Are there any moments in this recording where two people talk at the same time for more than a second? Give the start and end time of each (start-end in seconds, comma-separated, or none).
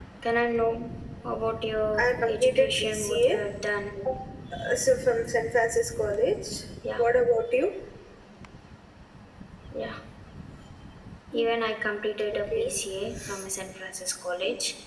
2.0-3.4